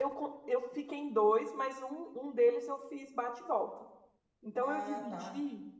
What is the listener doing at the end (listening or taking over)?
listening